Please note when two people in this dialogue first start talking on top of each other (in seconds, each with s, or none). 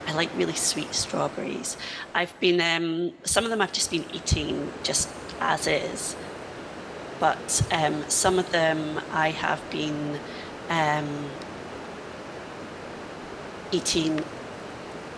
none